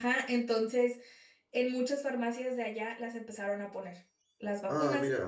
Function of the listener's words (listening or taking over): listening